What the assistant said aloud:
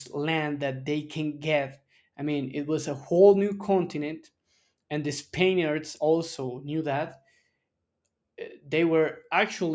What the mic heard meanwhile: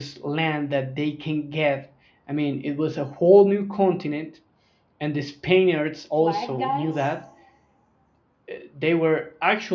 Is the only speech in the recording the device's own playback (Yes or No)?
No